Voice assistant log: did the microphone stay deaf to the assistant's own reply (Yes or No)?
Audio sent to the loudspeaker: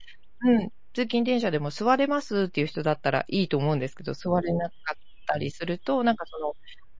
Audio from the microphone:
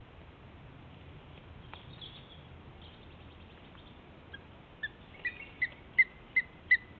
Yes